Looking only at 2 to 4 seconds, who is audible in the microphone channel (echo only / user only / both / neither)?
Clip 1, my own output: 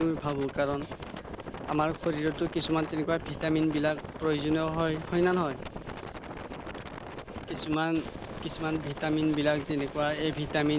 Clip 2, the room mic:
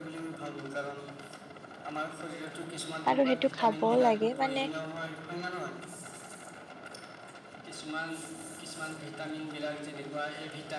both